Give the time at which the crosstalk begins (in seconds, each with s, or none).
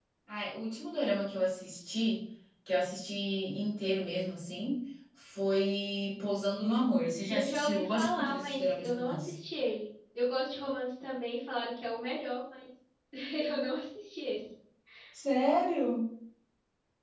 7.3 s